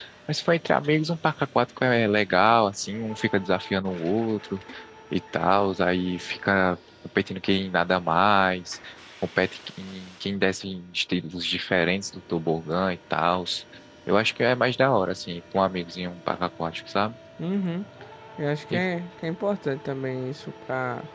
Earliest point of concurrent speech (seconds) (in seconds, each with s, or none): none